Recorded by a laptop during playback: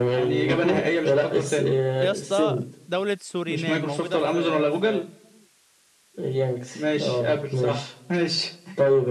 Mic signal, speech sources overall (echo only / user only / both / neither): both